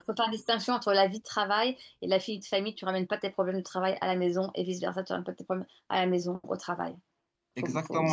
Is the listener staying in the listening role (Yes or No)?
No